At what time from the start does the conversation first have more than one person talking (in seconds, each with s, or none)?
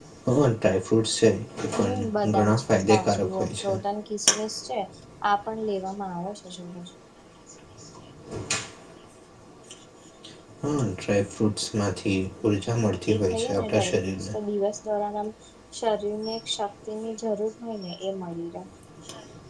1.8 s